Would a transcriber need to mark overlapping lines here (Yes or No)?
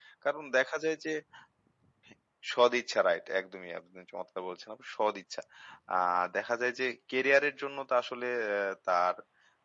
No